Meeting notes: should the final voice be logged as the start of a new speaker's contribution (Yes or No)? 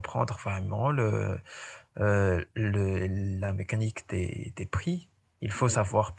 No